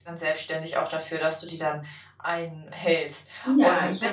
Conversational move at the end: taking over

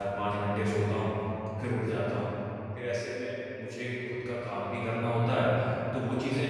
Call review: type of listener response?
listening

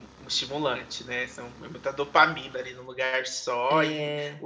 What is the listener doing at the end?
listening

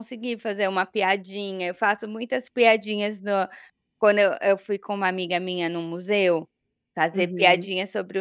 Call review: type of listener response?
listening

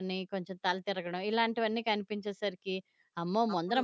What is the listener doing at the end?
listening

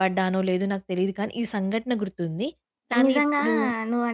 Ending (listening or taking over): taking over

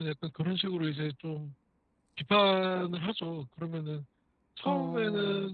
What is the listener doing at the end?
listening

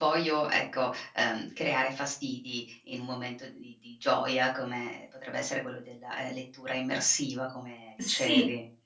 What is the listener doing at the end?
taking over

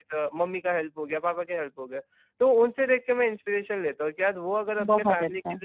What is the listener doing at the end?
listening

